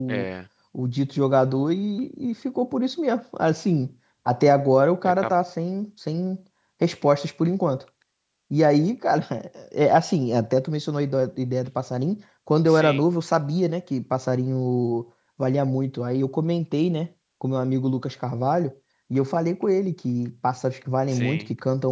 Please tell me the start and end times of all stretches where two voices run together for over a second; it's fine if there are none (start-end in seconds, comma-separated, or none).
none